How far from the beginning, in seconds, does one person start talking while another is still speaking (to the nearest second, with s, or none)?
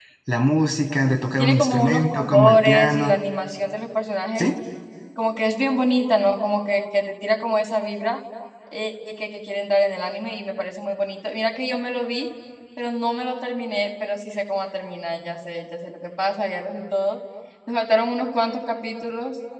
1 s